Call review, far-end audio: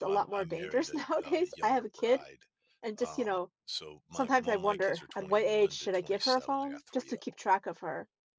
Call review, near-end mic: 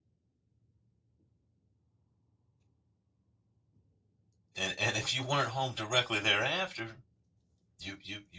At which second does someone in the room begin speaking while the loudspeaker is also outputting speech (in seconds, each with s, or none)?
4.6 s